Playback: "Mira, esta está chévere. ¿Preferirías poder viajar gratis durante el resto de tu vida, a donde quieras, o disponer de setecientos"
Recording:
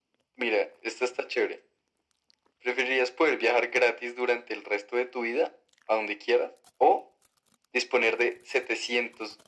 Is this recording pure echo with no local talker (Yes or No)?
Yes